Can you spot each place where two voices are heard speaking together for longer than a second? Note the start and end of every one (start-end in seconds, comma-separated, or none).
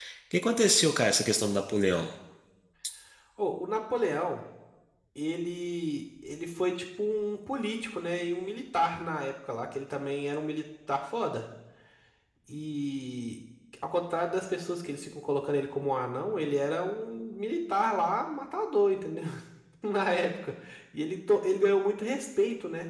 none